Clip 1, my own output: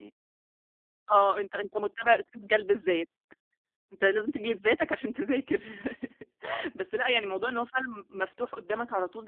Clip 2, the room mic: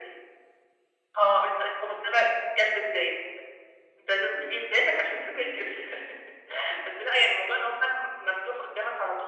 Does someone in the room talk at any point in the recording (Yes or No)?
No